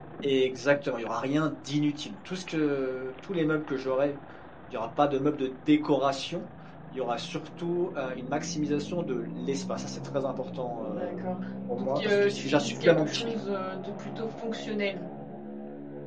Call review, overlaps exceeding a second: present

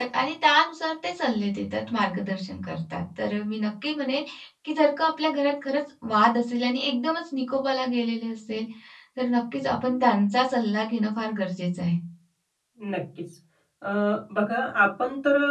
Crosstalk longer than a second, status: none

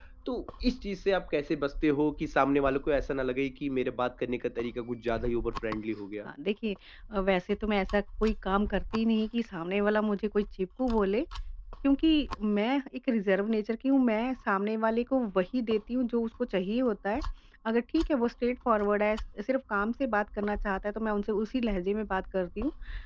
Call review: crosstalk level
none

